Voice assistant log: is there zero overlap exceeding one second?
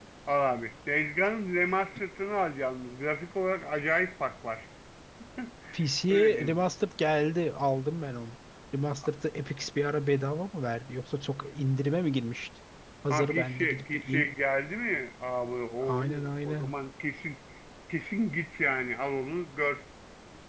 No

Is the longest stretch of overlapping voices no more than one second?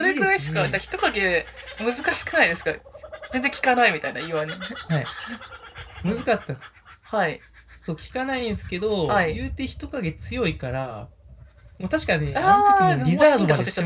No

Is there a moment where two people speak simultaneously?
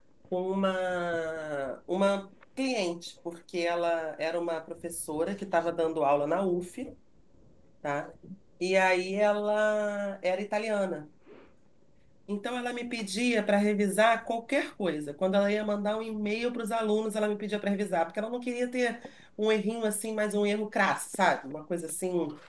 No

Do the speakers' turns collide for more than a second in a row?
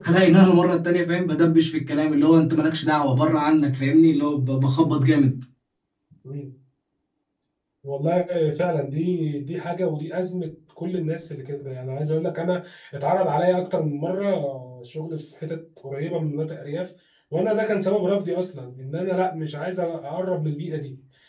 No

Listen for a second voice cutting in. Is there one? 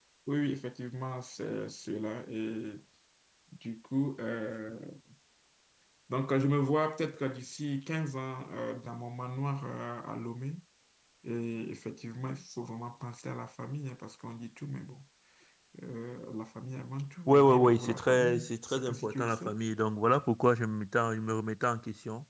Yes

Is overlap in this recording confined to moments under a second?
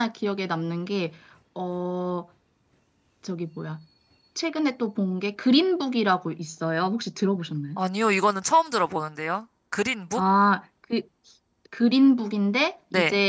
Yes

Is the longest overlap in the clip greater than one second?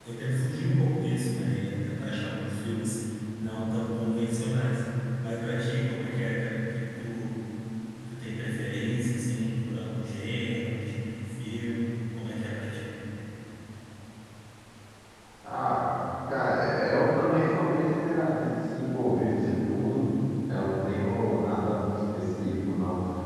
No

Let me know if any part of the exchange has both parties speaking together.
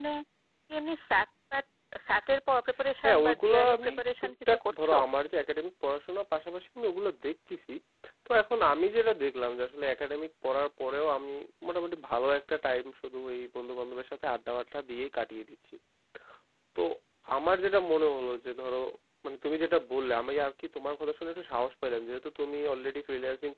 Yes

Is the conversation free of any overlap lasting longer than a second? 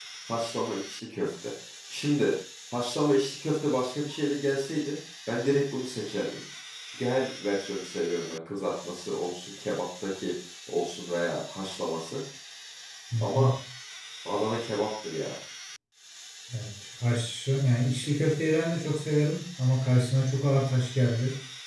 Yes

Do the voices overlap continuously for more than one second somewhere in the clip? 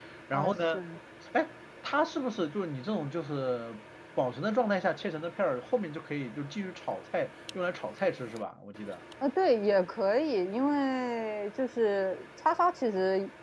No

